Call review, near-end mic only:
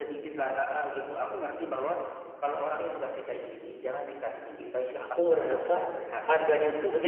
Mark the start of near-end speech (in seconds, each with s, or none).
5.0 s